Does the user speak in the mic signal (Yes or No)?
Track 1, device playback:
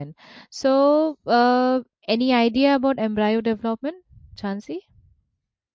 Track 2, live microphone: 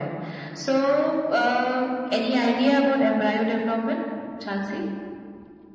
No